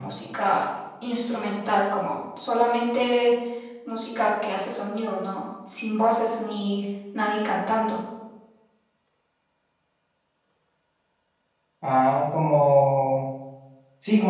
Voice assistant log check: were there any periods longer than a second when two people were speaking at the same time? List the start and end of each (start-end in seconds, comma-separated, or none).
none